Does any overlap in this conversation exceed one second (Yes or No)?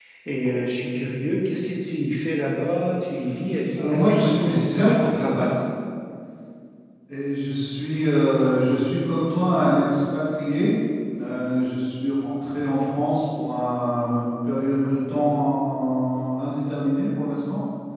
Yes